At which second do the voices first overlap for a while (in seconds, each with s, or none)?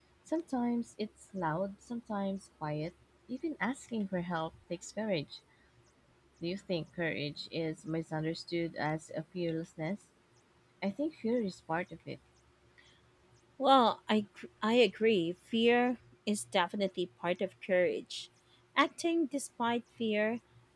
none